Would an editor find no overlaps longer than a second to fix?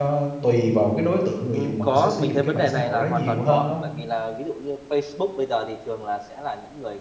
No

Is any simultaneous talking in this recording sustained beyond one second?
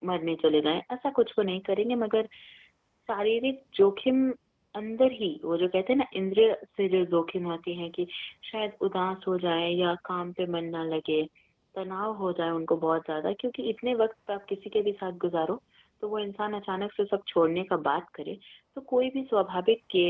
No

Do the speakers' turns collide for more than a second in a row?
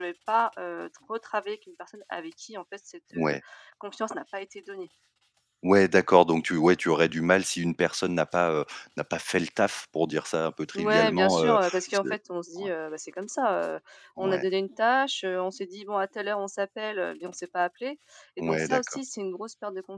Yes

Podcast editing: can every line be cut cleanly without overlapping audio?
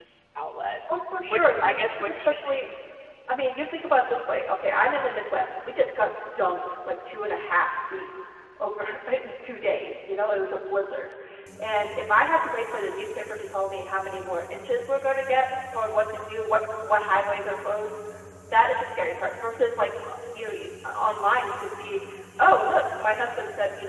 No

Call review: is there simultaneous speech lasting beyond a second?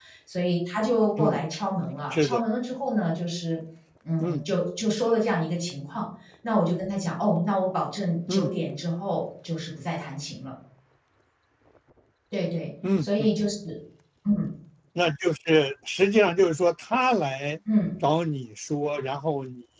No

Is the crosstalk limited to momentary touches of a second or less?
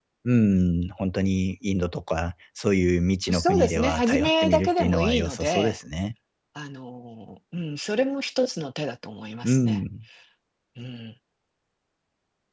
No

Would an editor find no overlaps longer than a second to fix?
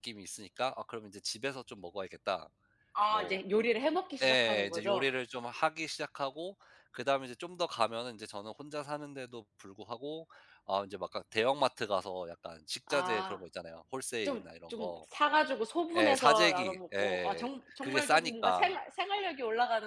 No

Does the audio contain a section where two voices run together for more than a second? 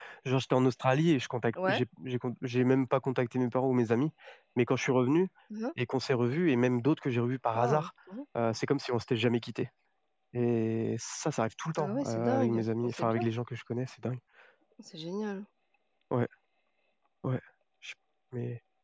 Yes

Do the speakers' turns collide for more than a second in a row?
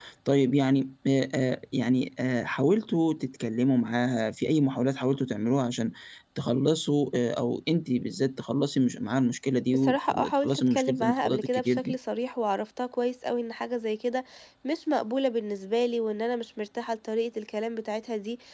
Yes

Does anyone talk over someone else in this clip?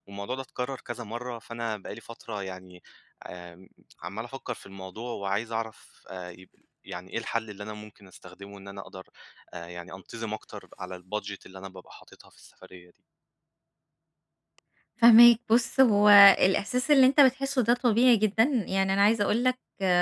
No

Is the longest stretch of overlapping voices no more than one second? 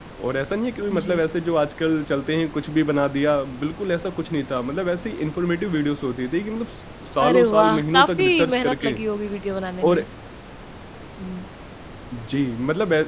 No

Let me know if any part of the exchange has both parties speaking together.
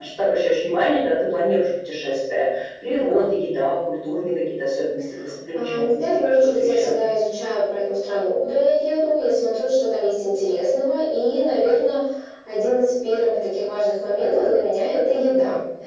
Yes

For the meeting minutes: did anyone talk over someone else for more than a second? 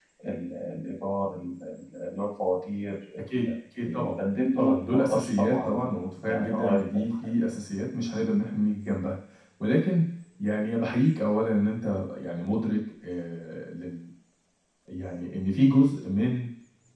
Yes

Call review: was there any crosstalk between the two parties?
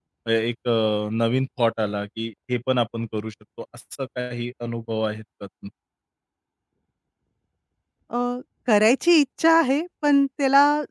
No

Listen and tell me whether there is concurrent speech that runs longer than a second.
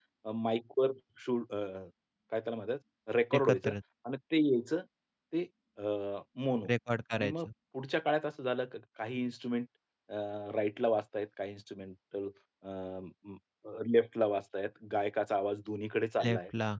No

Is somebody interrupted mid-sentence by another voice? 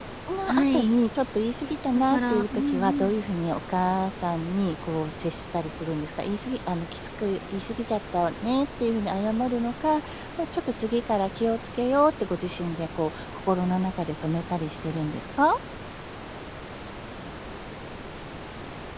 Yes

